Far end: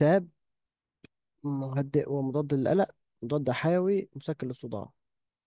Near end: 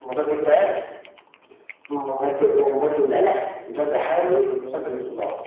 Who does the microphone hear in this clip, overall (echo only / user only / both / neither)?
both